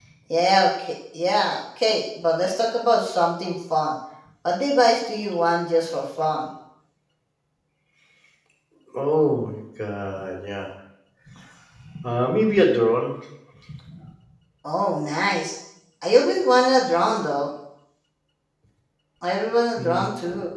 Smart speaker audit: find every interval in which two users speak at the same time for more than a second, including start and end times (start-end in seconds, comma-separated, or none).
none